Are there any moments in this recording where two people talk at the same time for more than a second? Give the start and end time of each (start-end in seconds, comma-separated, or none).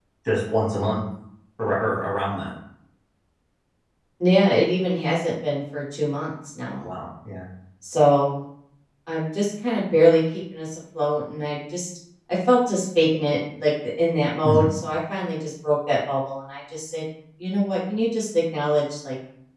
none